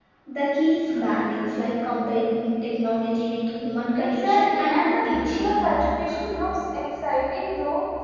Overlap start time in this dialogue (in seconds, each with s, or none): 4.0 s